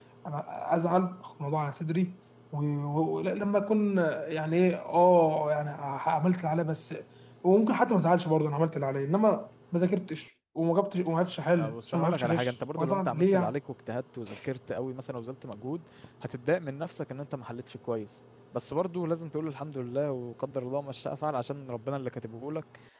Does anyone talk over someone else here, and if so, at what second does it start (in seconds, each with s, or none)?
11.6 s